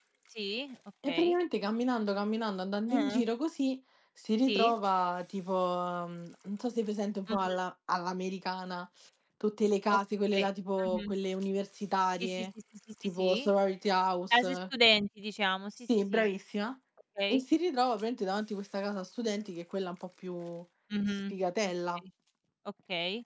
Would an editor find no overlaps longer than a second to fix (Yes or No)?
Yes